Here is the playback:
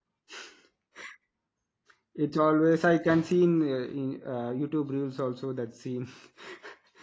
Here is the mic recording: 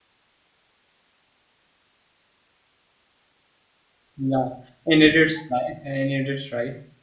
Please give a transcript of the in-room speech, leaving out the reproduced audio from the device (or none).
yeah, and it is right, and it is right.